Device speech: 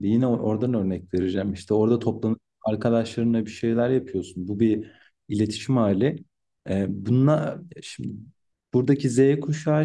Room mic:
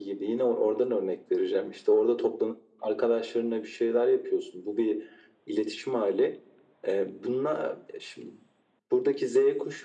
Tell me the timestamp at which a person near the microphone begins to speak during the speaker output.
none

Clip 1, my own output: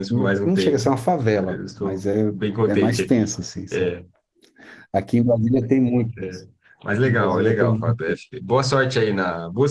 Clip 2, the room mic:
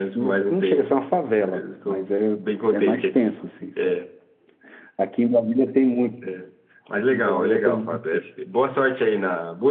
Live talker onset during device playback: none

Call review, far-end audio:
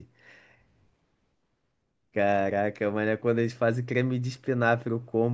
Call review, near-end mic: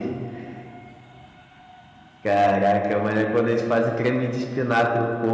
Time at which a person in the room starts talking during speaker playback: none

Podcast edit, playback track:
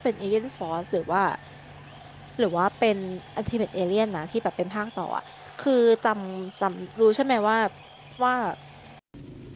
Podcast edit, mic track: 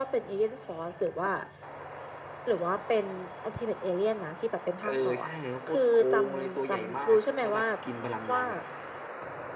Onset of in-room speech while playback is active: 4.8 s

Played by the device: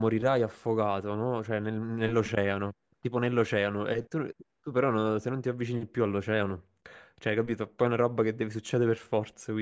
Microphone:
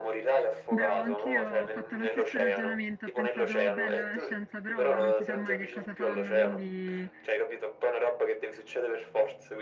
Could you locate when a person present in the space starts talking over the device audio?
0.7 s

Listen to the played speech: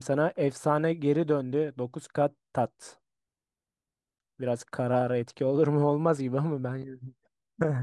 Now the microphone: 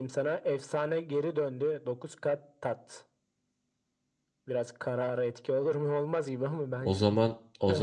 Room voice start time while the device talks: 6.8 s

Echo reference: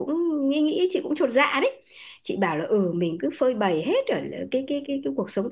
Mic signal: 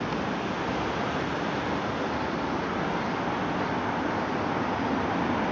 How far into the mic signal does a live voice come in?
none

